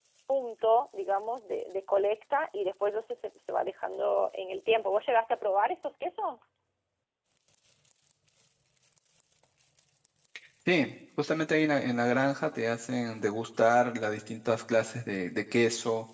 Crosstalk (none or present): none